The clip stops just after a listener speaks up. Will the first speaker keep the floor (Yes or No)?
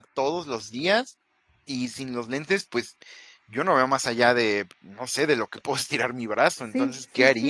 No